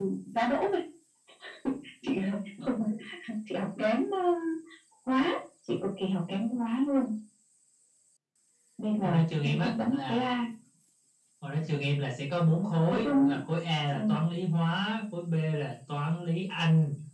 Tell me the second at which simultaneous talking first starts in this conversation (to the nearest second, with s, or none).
9 s